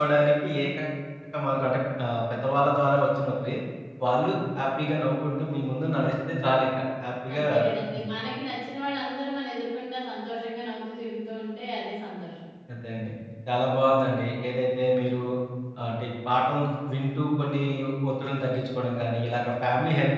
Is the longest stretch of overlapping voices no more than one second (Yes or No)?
Yes